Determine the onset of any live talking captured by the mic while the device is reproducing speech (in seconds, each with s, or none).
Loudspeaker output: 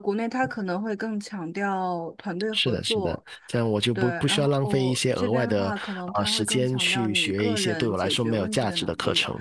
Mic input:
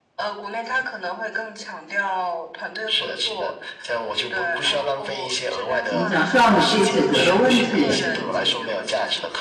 5.8 s